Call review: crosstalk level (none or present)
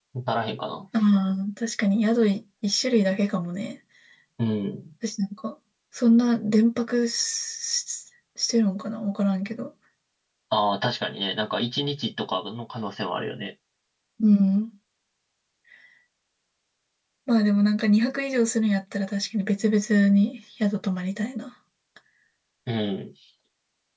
none